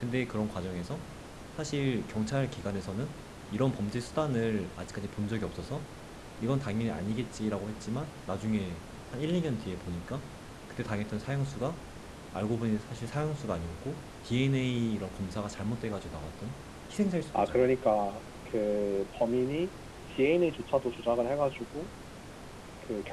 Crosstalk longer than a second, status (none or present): none